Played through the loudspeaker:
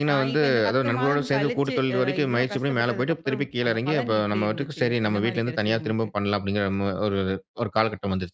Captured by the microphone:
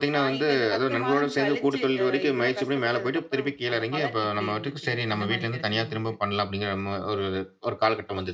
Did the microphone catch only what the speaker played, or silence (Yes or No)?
Yes